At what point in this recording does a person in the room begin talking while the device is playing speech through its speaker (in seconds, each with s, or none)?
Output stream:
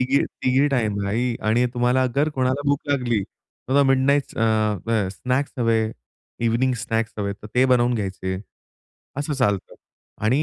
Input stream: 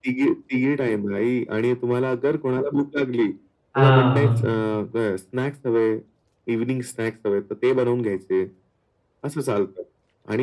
3.7 s